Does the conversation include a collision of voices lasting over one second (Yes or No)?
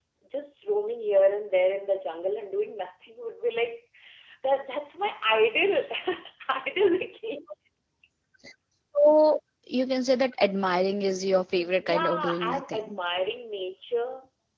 Yes